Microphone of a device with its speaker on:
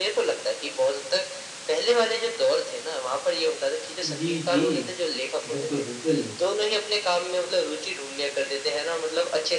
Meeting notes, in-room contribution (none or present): present